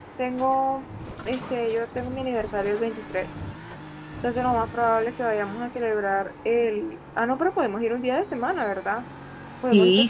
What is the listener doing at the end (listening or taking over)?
taking over